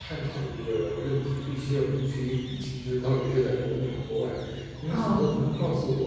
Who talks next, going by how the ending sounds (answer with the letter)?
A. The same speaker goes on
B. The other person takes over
A